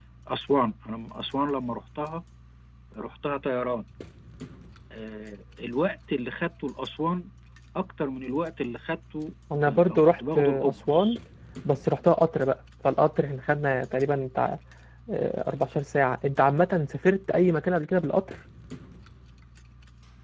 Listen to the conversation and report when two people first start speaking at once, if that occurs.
10 s

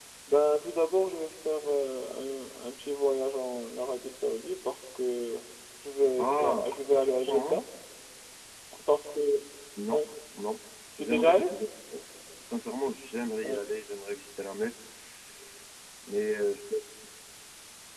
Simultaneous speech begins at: 6 s

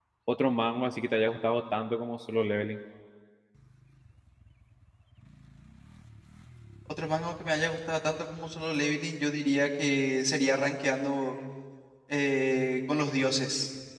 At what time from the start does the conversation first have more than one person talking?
none

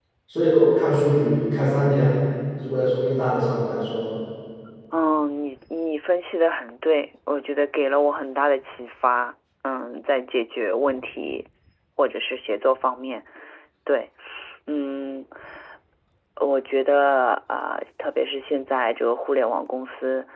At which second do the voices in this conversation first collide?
none

